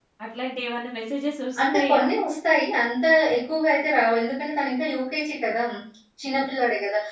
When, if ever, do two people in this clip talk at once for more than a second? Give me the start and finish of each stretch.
none

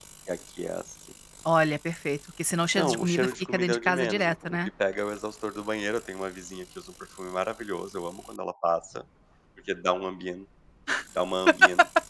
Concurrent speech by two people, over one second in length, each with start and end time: 2.7-4.7

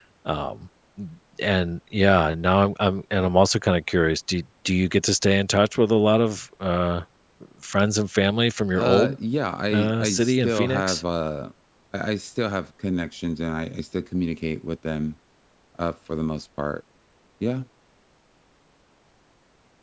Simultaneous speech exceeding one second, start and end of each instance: 9.7-11.0

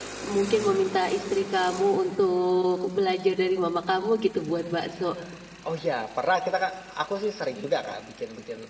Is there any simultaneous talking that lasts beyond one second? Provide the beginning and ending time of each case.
none

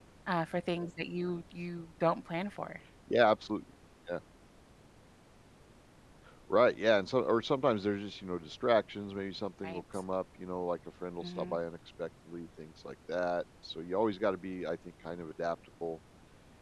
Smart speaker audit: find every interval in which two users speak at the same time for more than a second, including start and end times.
none

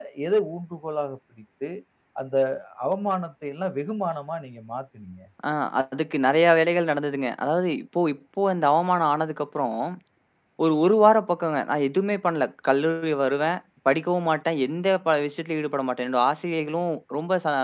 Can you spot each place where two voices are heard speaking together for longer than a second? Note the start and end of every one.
none

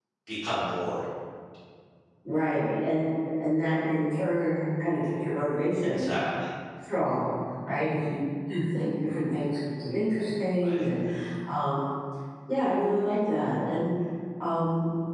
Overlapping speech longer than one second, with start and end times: none

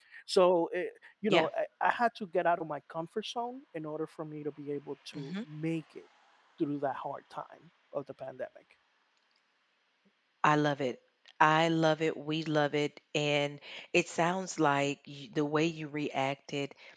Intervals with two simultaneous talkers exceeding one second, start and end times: none

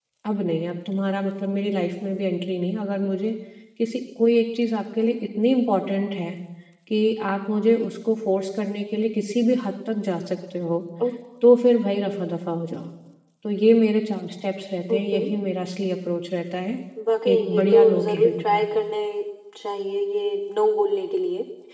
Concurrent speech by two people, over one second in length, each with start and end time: 17.3-18.6

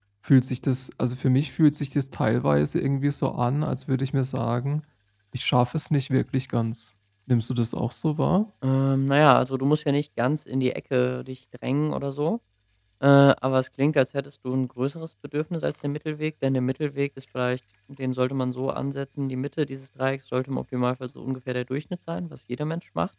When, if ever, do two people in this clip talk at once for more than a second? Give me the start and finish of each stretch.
none

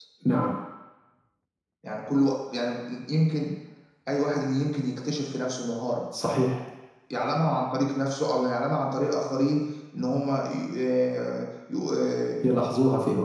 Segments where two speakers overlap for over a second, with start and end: none

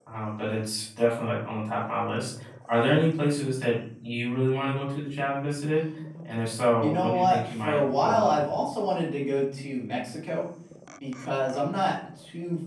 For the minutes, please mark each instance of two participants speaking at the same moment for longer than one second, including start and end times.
6.8-8.4

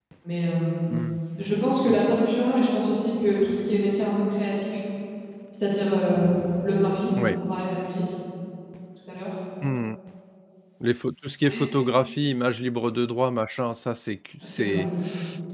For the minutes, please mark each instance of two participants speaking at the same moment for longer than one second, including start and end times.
none

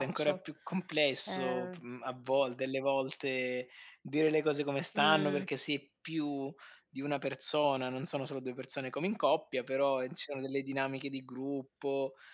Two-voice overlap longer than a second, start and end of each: none

